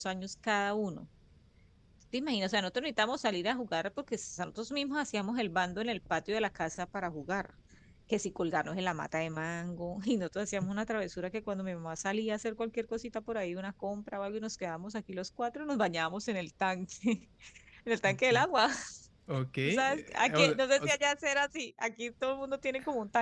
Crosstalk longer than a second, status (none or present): present